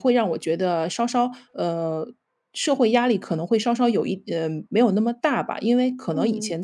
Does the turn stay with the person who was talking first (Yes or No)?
Yes